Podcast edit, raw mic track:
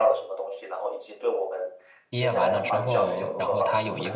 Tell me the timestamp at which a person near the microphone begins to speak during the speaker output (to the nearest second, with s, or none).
2 s